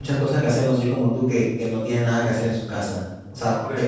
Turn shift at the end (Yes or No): Yes